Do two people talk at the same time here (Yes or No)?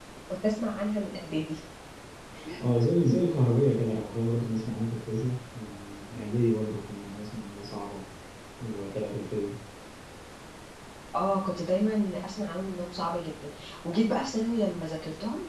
No